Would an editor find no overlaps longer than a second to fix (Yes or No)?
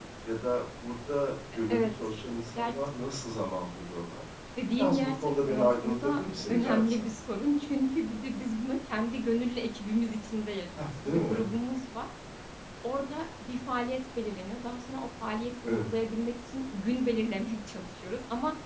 No